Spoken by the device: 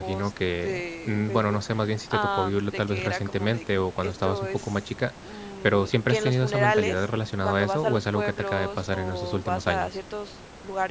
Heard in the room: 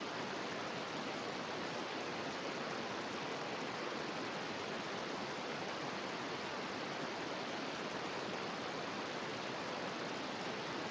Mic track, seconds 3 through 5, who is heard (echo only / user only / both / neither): neither